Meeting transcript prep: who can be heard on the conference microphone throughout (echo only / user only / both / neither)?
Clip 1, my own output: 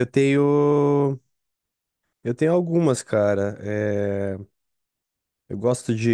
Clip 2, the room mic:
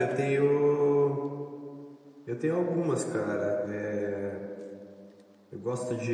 echo only